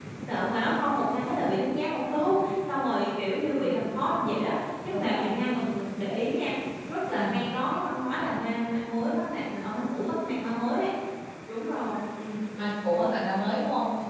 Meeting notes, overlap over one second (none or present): none